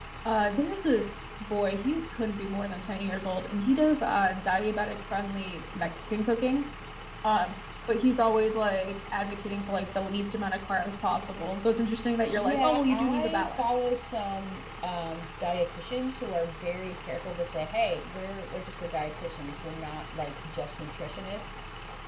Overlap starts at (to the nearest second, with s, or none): 12 s